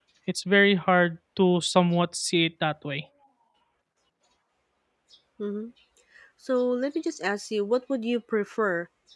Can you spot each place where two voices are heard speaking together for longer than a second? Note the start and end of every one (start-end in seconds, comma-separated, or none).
none